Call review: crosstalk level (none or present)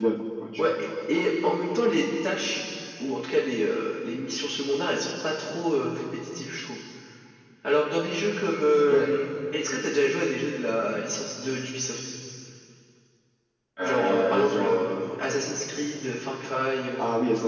present